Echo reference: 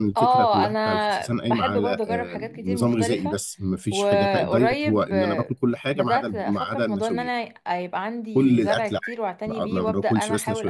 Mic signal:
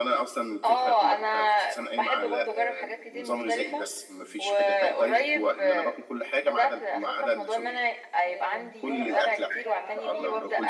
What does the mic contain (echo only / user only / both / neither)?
both